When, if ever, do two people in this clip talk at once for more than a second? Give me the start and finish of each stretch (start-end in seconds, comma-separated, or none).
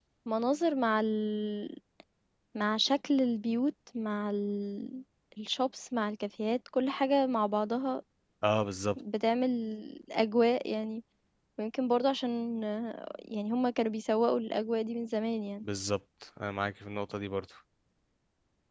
none